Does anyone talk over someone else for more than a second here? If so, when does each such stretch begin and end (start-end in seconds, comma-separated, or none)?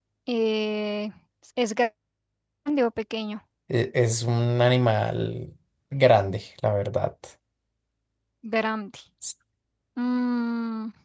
none